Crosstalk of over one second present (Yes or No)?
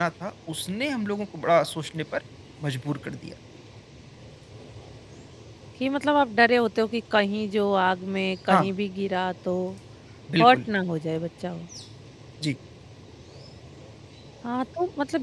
No